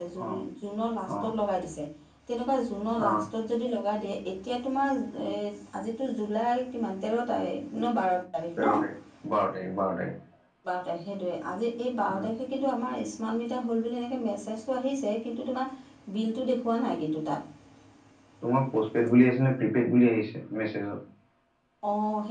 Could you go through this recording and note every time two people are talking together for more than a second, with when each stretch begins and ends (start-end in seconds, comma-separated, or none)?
none